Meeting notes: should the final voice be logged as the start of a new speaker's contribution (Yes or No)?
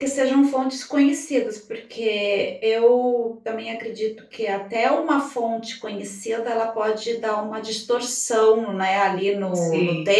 No